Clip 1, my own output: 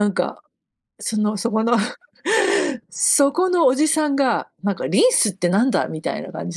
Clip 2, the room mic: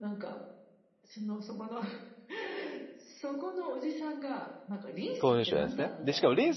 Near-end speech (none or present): present